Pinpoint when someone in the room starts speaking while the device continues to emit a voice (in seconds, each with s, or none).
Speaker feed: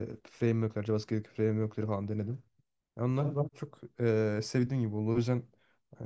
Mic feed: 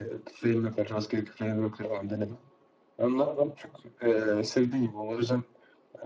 none